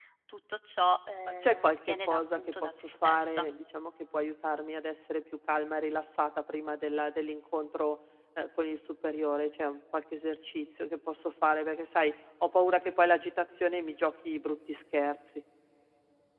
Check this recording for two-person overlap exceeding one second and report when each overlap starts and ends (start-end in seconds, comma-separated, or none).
1.4-3.5